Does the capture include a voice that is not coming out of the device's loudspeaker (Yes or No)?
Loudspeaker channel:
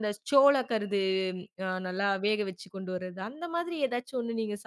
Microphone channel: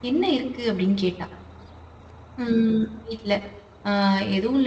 Yes